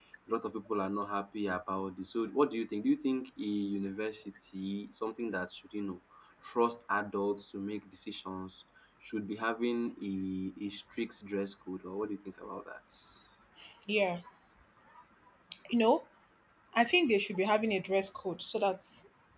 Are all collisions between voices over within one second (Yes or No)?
Yes